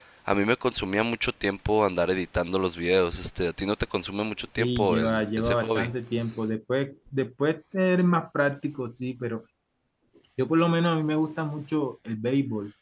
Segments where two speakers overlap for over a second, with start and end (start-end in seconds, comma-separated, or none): 4.6-5.9